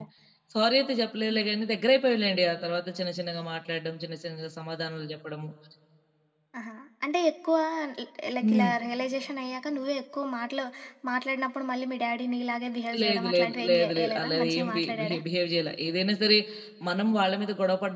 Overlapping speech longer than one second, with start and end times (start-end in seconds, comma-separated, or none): 13.0-15.2